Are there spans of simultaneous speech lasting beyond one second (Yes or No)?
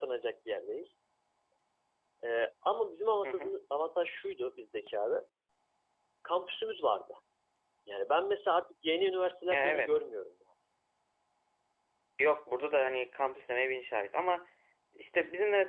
No